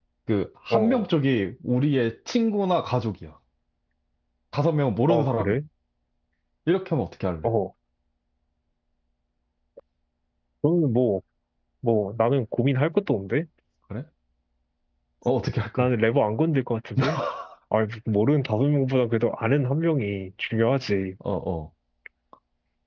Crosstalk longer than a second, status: none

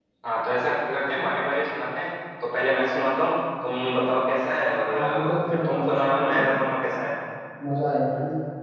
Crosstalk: present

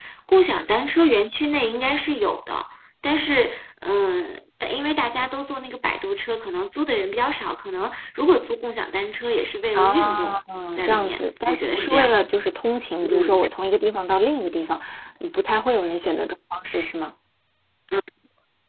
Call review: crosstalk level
present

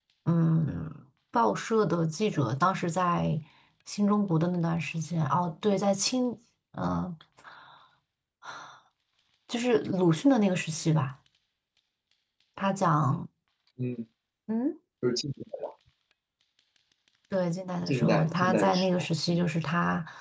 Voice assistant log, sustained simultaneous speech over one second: present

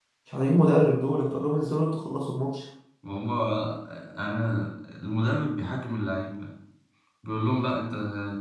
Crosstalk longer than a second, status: none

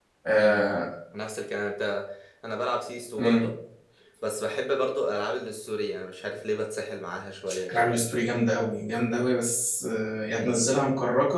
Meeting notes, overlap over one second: none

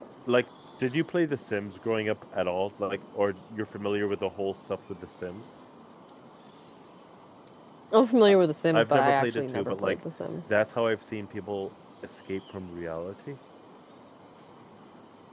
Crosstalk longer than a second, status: present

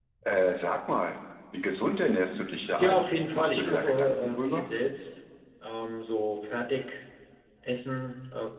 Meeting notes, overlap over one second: present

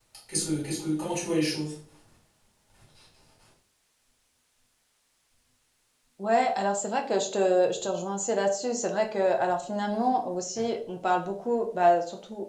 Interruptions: none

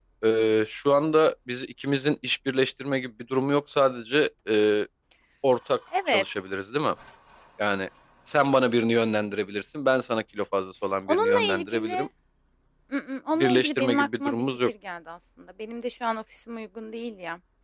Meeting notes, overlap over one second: present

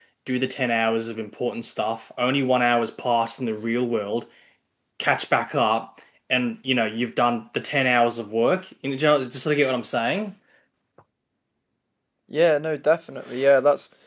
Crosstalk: none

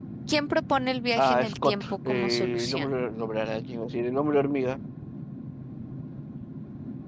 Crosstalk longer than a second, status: present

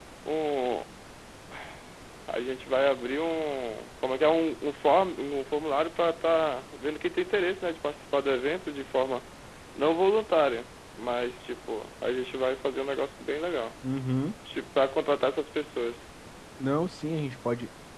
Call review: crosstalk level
none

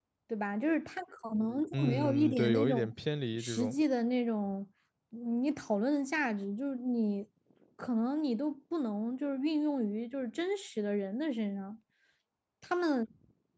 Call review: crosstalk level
present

